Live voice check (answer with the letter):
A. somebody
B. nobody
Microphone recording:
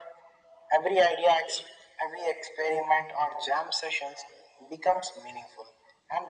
B